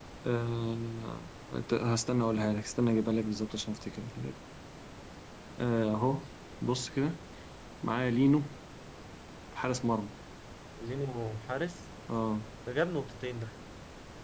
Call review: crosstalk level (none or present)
none